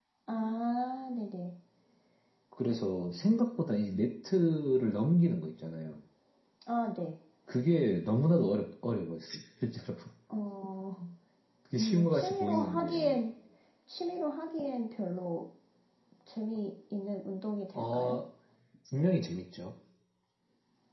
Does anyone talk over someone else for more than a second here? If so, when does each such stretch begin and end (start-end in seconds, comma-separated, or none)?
11.8-13.2